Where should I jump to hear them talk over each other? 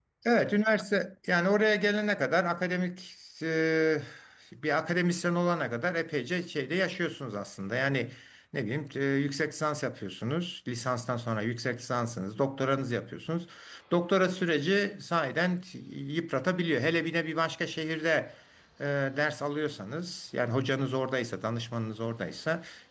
none

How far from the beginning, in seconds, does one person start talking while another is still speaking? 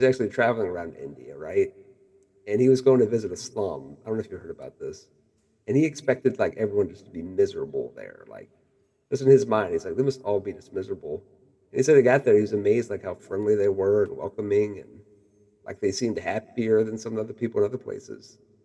none

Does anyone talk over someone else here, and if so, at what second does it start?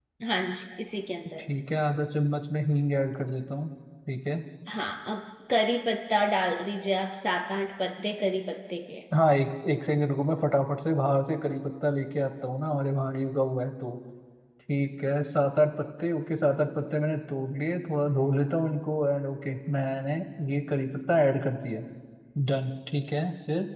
none

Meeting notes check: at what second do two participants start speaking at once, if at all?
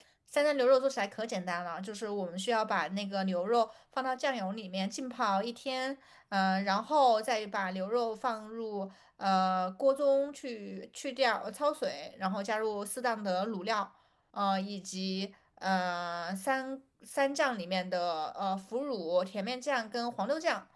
none

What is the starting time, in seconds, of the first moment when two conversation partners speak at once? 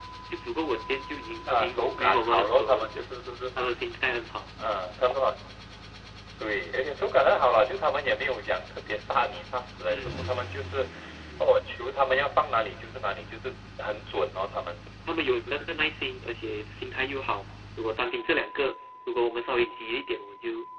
1.5 s

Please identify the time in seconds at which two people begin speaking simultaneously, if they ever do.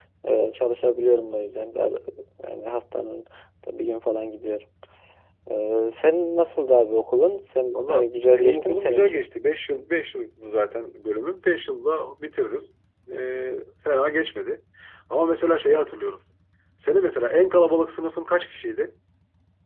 7.7 s

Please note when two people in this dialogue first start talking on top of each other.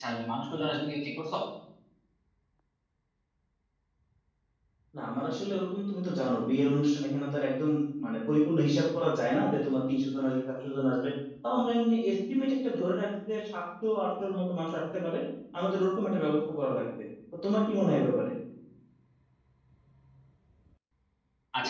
none

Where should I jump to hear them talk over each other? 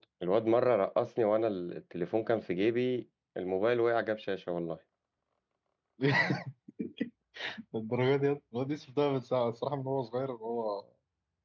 none

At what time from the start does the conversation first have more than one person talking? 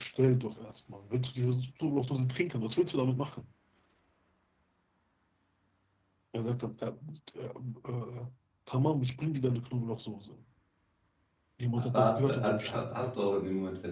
11.8 s

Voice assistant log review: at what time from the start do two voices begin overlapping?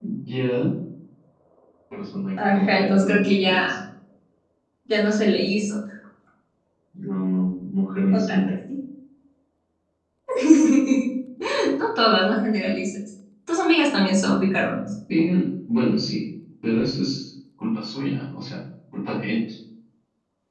2.4 s

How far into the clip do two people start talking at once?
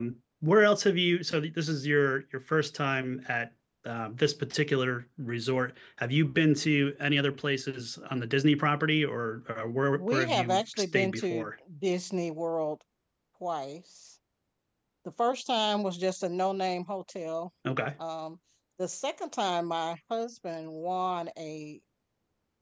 9.9 s

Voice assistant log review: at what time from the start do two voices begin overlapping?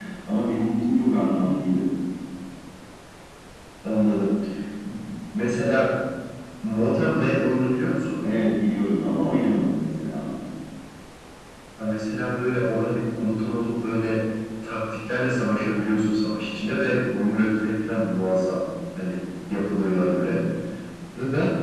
none

